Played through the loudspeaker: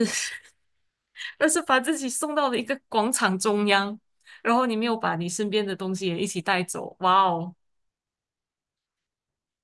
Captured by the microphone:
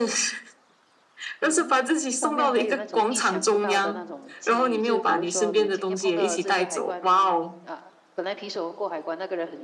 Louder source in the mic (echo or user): echo